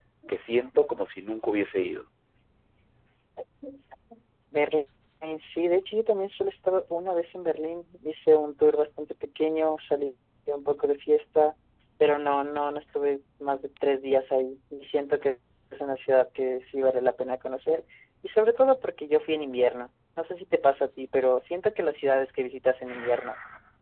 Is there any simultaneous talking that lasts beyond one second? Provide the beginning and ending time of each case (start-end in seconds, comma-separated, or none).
none